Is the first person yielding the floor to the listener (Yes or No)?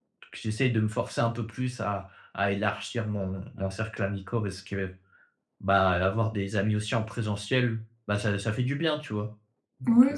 Yes